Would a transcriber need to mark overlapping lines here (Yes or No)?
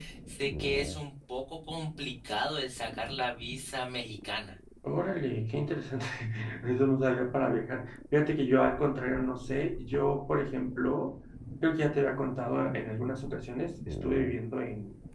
No